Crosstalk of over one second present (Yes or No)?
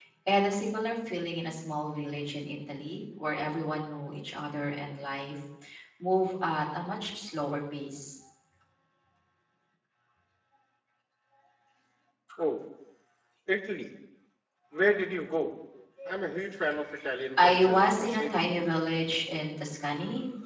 Yes